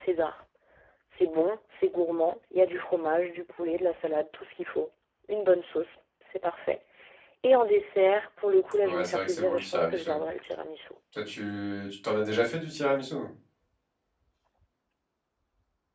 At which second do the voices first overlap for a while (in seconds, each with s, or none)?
8.8 s